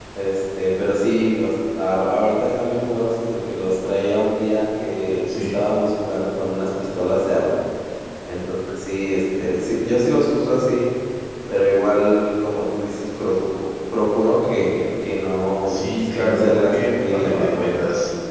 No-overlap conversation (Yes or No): No